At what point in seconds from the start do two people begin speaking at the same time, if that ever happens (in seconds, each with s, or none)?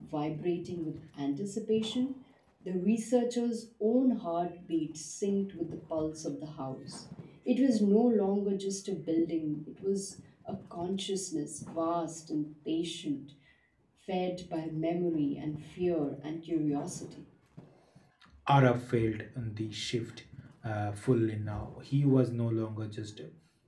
none